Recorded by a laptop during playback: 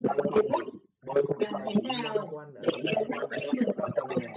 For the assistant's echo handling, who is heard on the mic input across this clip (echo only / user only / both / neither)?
both